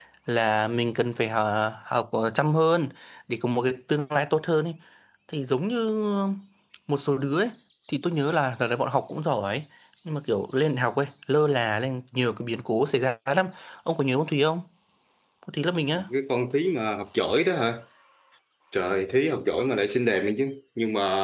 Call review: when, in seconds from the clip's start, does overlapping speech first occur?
none

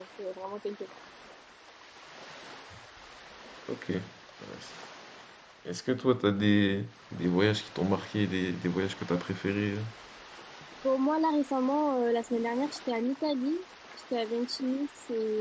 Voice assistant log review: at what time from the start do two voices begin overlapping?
none

